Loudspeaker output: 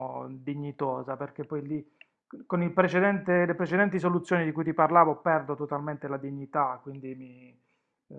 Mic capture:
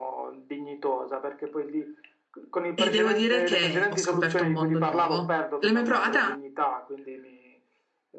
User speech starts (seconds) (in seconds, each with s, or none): 2.7 s